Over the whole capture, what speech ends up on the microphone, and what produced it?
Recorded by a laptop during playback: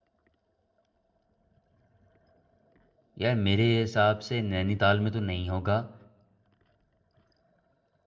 user only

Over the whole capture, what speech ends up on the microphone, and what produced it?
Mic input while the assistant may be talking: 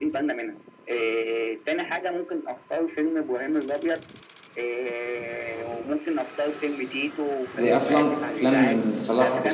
both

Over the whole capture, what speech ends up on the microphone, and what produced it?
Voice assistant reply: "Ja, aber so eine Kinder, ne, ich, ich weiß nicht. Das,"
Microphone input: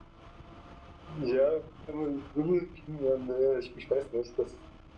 echo only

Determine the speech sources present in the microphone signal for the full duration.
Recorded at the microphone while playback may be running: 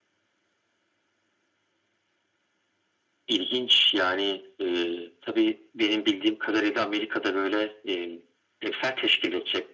echo only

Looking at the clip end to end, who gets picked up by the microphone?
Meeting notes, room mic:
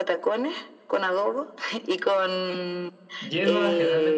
both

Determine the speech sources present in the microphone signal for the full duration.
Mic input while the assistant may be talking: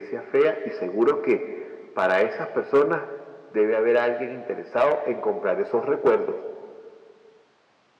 echo only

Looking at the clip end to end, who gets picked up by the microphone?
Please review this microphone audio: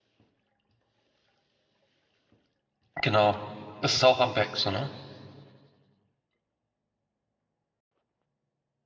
user only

